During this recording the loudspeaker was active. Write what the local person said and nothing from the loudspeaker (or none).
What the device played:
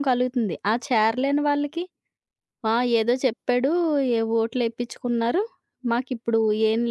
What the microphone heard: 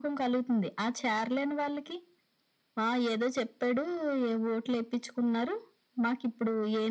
none